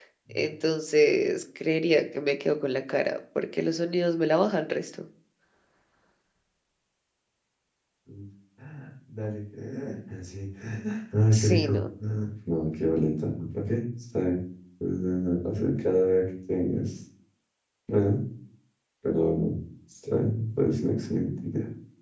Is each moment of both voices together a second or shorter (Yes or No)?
Yes